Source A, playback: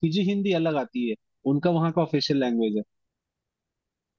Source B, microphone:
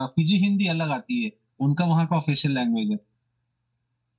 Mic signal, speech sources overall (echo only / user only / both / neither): echo only